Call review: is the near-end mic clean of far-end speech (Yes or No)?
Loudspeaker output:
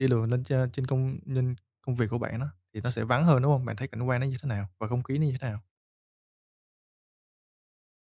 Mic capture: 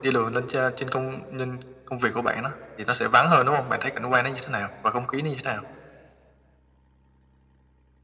No